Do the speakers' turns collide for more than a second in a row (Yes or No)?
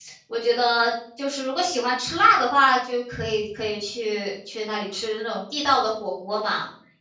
No